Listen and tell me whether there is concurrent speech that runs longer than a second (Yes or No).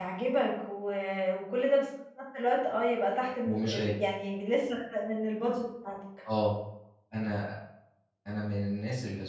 No